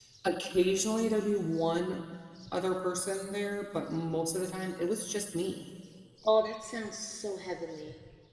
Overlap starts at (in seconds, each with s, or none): none